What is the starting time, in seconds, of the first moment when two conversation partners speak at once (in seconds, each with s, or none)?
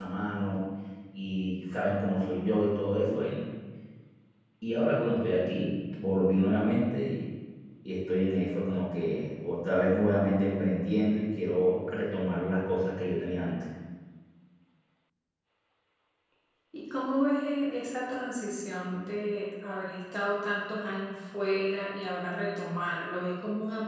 none